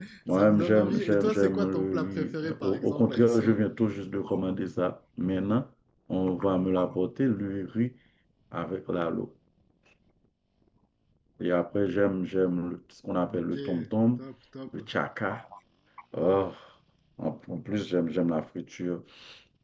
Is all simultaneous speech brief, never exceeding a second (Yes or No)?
No